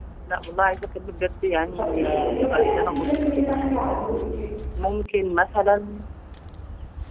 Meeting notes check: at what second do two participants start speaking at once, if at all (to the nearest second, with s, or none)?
2 s